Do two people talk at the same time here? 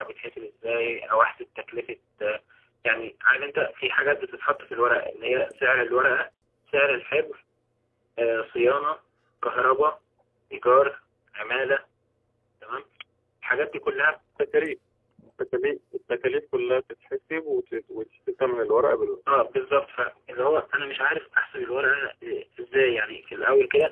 No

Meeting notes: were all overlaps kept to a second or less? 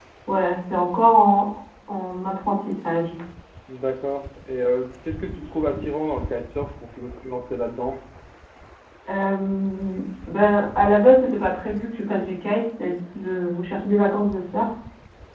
Yes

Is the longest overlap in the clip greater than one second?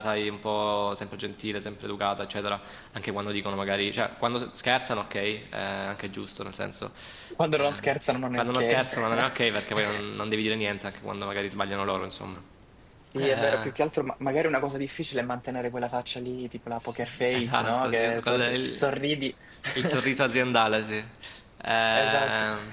Yes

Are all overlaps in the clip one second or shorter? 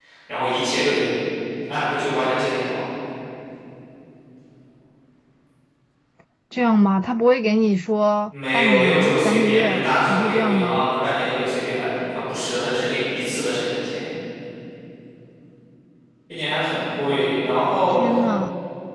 No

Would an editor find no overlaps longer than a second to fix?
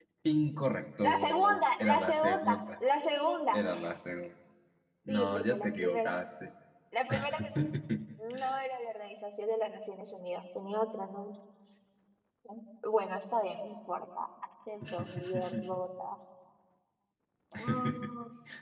No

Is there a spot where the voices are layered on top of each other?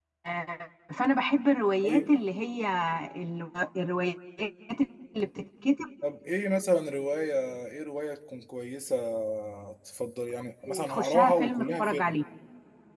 Yes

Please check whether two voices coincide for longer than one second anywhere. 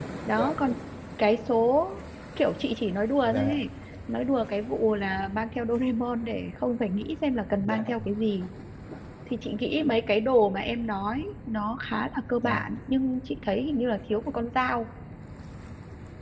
No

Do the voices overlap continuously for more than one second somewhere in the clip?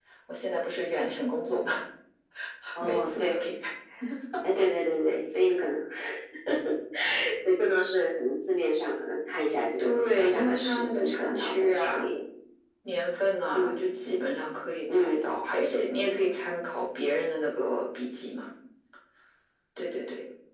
Yes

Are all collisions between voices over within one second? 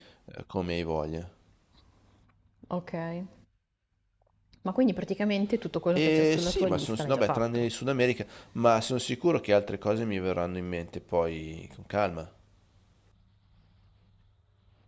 No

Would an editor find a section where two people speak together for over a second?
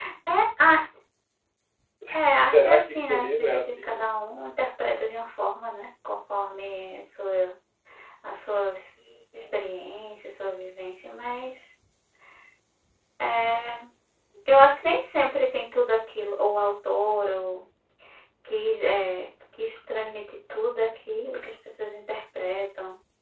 Yes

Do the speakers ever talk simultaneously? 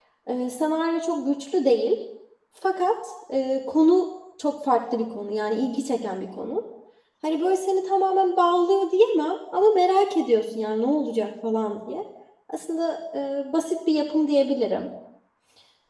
No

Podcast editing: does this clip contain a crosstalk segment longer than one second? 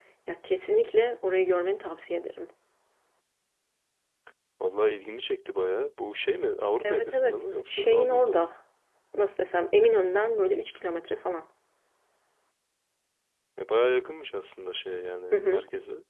Yes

